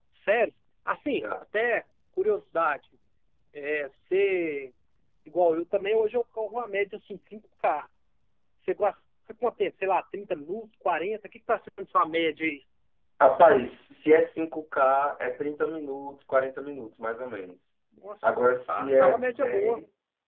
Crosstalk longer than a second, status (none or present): present